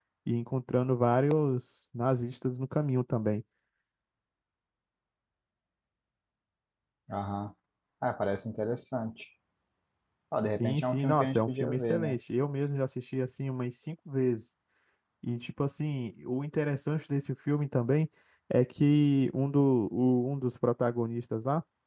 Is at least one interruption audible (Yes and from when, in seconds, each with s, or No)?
Yes, from 10.6 s